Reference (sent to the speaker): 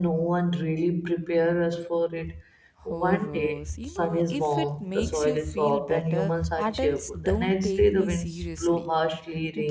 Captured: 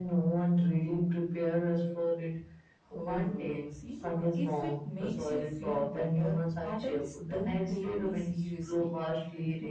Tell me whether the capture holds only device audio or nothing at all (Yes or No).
Yes